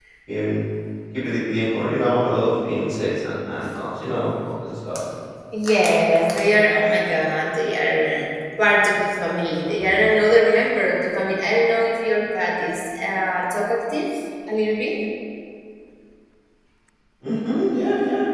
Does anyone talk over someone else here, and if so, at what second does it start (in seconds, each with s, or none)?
none